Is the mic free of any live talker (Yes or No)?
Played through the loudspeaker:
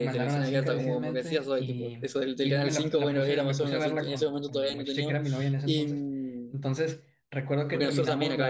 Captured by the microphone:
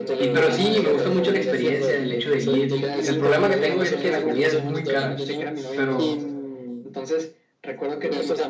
No